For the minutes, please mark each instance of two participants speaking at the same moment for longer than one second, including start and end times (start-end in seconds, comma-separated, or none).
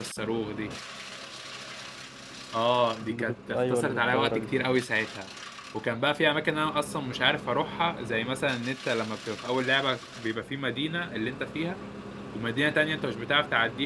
3.0-4.5